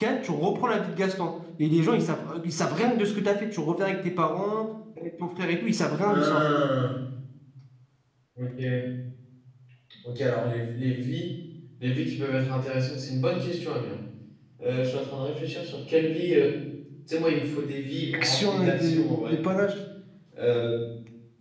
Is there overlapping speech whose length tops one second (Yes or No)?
Yes